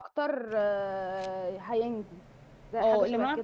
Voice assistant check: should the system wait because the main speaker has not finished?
No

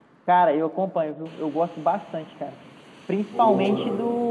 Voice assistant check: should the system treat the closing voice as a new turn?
No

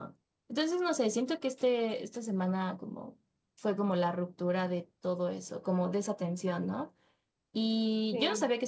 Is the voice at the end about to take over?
No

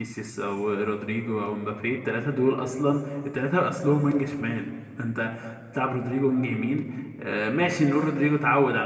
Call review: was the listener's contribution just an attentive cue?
Yes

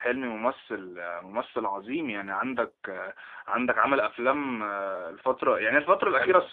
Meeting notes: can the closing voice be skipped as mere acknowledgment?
No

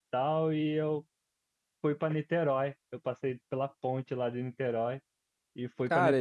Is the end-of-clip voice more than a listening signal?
Yes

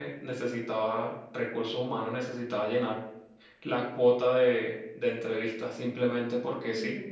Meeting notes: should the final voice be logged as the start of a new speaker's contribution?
Yes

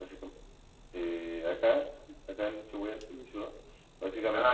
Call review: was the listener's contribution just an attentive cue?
Yes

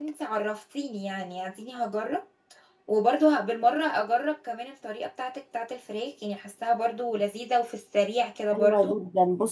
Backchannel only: No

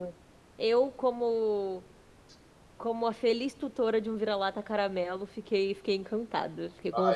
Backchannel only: No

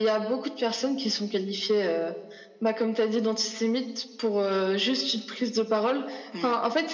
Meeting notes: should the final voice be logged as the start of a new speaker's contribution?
No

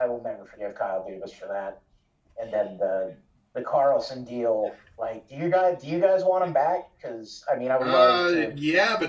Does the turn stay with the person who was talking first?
No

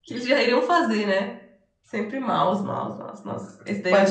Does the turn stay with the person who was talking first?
No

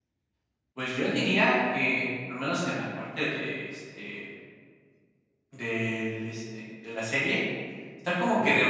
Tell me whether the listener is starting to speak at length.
No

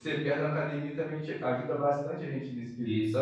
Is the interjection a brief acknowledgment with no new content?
No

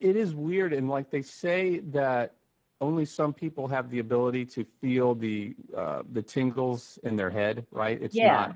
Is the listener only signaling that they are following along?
Yes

